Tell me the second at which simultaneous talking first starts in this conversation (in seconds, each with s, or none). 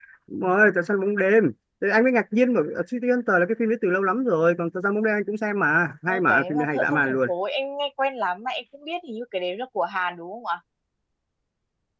6.1 s